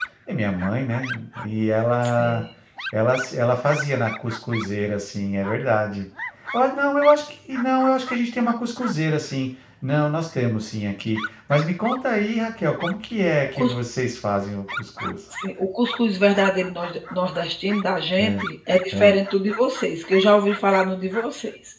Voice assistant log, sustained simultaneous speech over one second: none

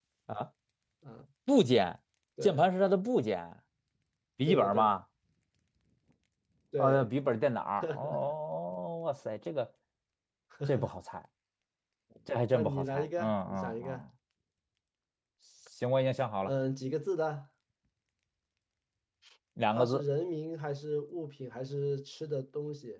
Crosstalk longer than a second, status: present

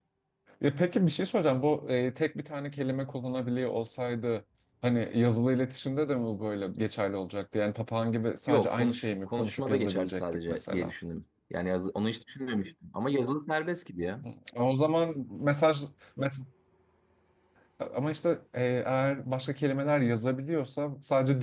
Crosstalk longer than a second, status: present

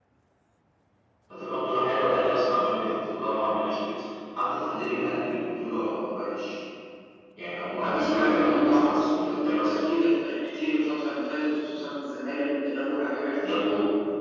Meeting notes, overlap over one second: present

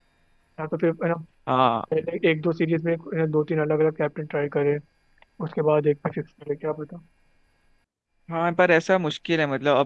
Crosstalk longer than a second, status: none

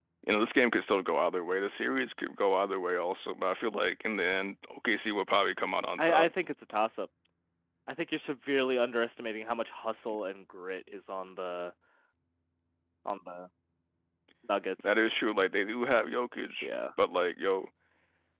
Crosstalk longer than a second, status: none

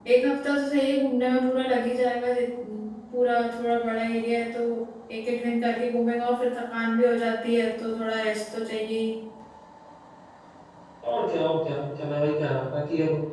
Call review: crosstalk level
none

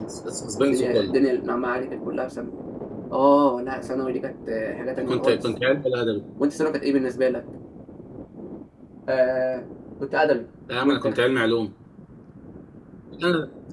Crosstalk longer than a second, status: none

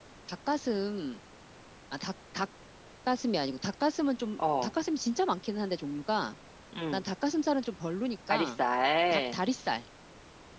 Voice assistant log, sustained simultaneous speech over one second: none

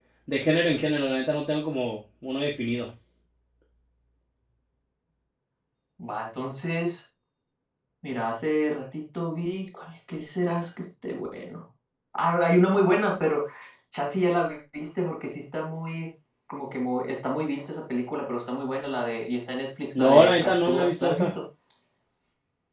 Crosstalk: present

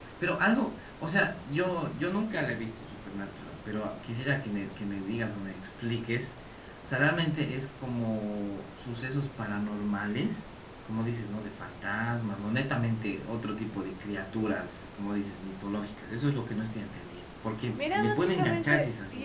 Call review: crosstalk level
present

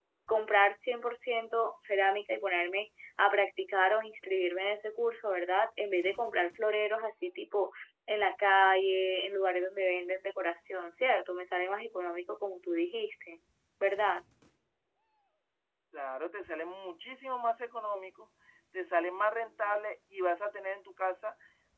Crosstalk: none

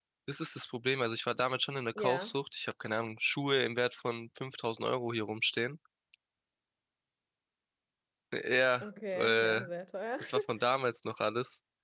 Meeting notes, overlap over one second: none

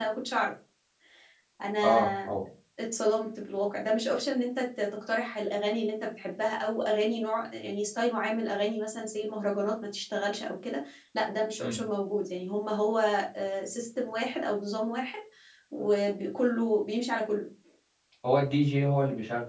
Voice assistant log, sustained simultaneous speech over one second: none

